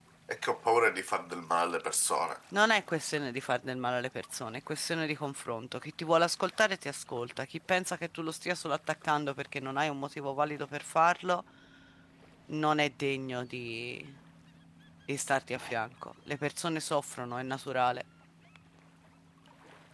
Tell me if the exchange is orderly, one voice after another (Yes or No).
Yes